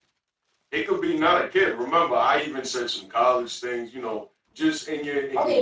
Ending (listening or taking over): taking over